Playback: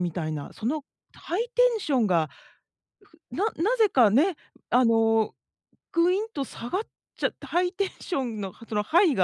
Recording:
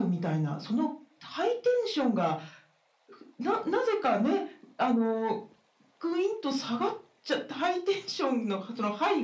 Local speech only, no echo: none

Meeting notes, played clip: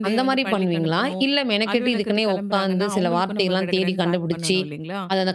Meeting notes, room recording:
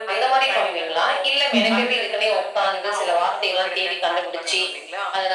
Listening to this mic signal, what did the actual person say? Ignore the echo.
ம்ஹ்ம்.

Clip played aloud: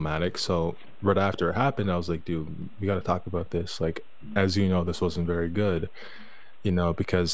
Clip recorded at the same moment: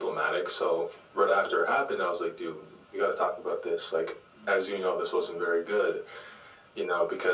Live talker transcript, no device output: none

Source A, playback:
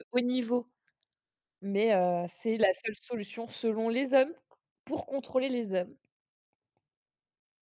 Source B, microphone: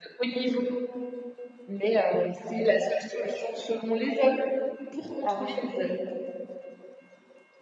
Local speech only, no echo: Ah oui!

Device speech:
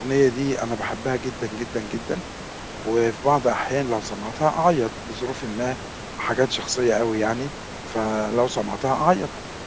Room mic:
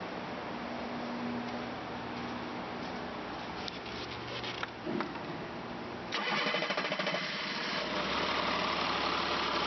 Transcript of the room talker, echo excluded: none

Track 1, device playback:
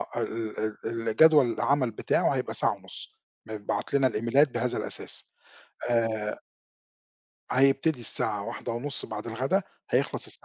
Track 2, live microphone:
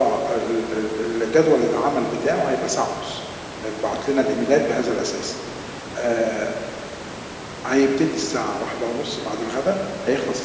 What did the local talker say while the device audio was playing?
none

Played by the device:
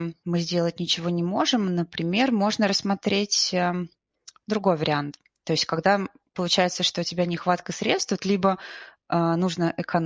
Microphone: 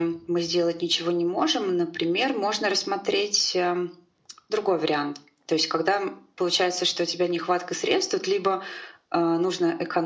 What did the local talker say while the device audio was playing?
none

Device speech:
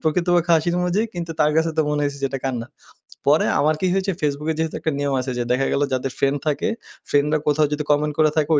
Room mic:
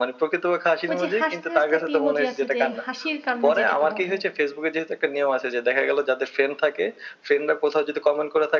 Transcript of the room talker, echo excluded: ঐ যে, হাসতে, হাসতে একটা ইমোজি আছে যে, হাসির কান্না যেটাকে বলে

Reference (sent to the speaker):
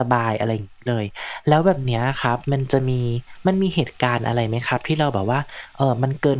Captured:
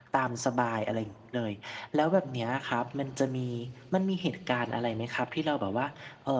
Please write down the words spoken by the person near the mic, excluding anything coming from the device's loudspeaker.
none

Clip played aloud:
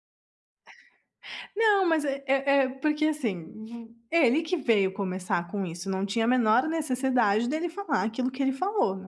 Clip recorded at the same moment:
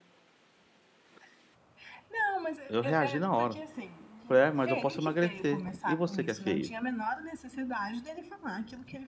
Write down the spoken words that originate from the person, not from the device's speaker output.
Eu reagi na hora, eu falei: "Ah, mas eu posso emagrecer. E você que é feio?"

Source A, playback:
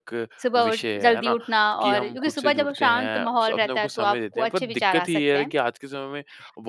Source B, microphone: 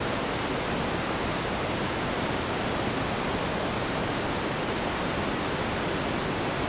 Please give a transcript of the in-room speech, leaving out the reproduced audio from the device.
none

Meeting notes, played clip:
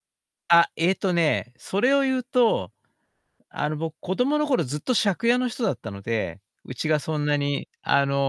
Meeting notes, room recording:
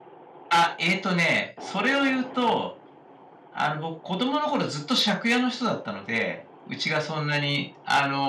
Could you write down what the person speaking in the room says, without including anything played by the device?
none

